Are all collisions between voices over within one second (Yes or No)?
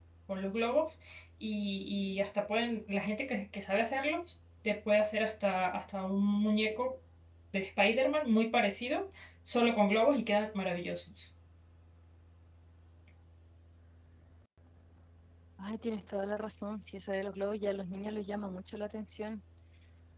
Yes